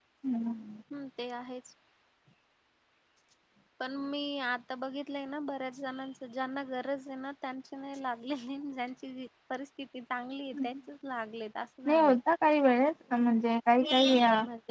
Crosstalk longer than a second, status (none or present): none